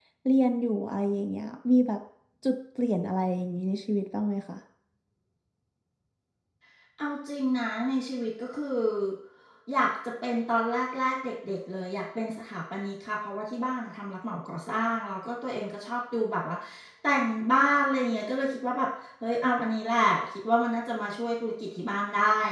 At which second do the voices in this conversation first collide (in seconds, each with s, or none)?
none